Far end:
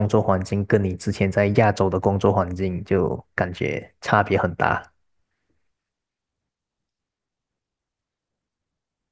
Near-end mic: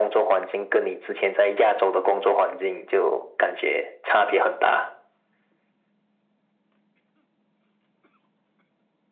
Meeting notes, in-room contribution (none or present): none